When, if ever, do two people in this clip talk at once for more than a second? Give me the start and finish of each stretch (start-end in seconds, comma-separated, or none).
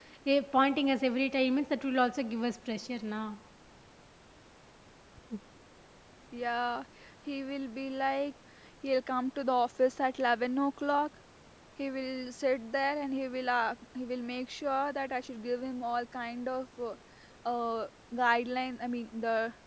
none